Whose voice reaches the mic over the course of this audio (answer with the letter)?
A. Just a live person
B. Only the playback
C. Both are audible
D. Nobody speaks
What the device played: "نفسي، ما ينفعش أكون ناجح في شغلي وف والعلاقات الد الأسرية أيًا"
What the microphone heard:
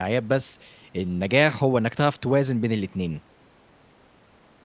A